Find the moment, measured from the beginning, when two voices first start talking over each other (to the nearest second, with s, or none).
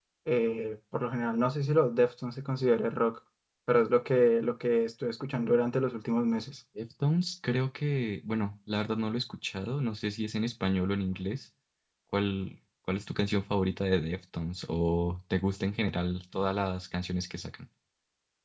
none